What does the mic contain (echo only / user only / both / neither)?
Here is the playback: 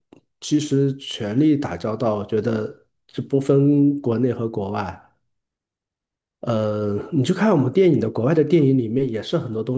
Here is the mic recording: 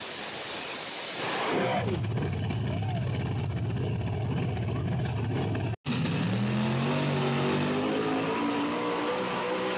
neither